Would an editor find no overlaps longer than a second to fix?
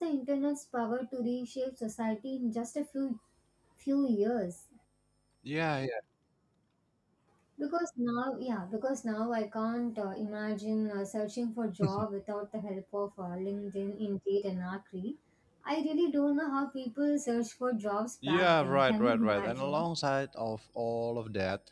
No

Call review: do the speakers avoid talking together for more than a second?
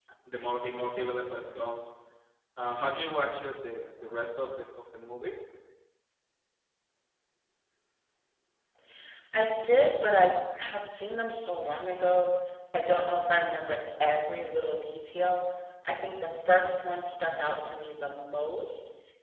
Yes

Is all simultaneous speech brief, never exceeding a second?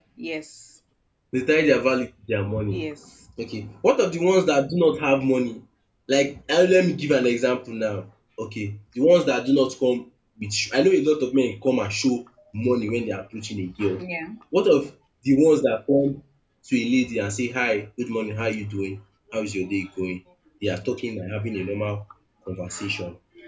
Yes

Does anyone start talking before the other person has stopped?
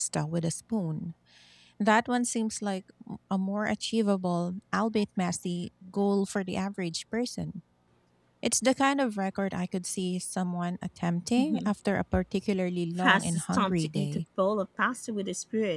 Yes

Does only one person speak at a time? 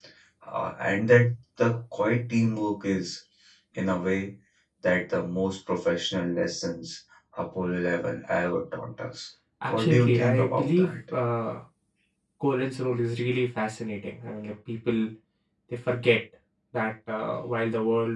No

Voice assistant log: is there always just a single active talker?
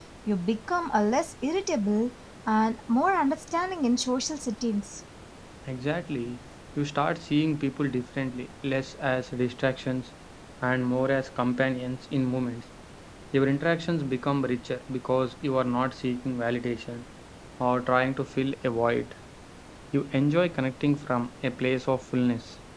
Yes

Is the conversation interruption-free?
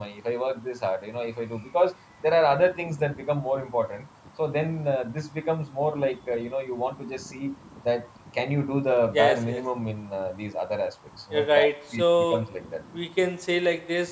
No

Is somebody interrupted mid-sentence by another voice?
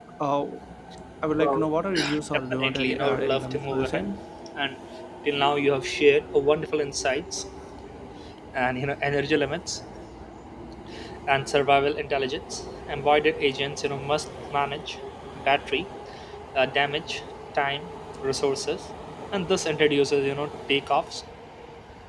Yes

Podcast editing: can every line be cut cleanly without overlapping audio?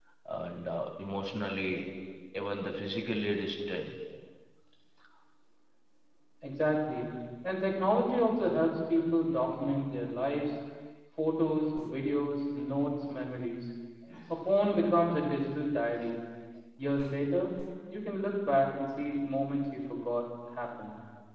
Yes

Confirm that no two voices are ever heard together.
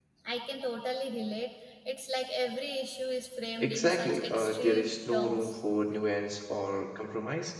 No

